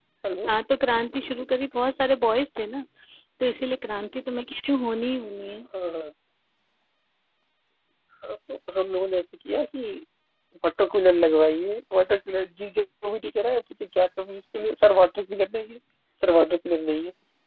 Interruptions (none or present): none